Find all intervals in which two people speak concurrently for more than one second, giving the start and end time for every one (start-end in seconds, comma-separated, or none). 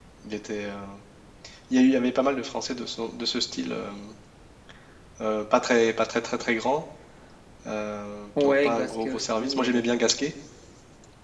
8.4-9.8